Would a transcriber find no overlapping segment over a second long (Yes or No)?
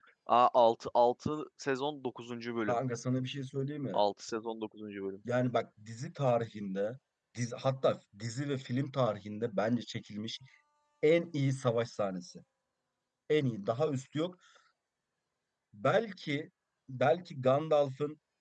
Yes